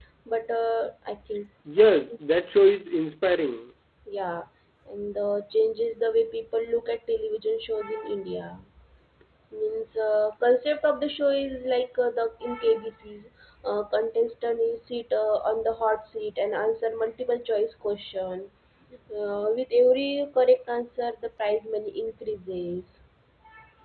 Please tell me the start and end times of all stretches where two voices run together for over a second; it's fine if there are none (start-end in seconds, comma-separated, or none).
none